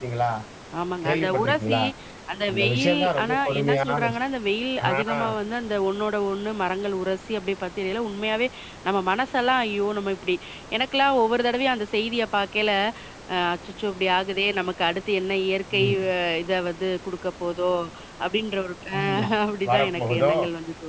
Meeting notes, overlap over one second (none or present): present